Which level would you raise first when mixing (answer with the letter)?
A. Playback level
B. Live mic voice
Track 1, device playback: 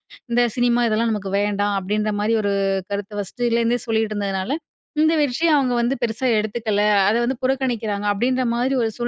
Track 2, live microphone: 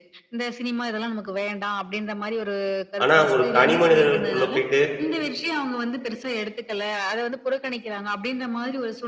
A